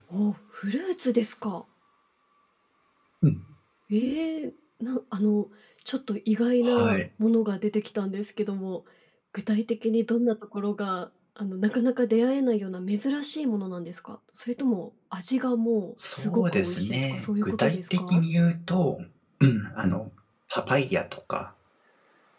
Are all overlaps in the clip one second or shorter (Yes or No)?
No